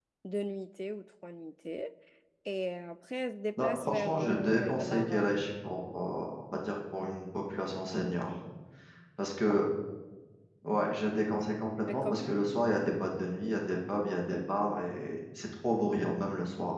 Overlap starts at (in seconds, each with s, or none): 3.6 s